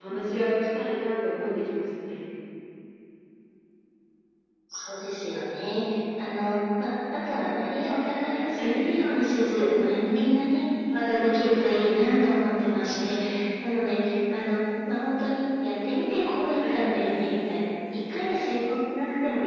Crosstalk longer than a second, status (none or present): none